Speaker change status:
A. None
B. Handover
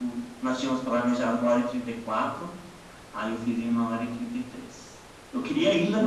A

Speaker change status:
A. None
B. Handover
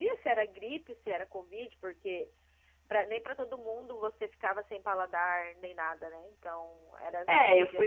B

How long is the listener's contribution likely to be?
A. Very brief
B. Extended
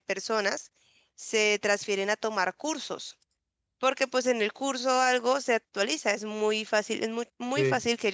A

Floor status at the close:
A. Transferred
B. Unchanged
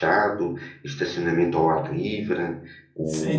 A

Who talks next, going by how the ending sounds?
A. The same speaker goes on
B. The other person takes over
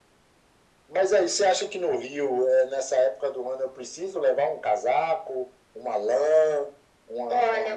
B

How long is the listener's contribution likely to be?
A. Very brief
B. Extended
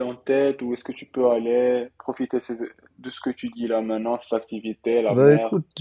B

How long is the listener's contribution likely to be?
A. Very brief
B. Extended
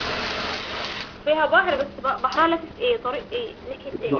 B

